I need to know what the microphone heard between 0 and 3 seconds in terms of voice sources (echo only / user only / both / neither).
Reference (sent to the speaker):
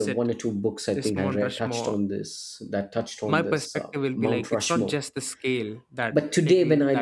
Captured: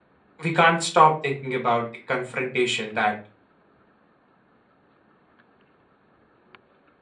user only